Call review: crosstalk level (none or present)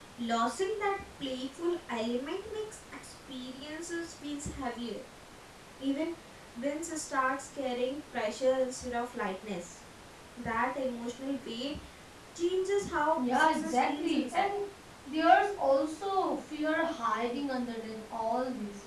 present